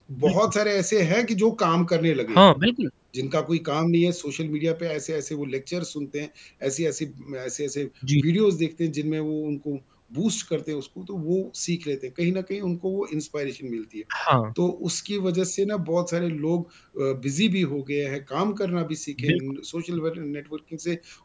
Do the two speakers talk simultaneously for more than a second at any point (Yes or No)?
No